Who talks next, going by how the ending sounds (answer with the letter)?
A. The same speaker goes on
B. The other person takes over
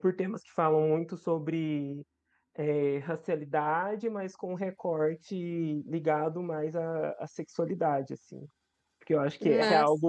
A